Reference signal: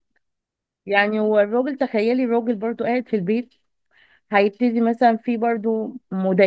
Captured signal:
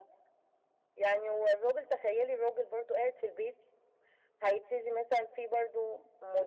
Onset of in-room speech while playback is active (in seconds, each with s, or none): none